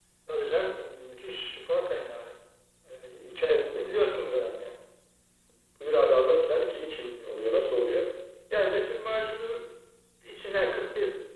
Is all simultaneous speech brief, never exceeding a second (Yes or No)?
Yes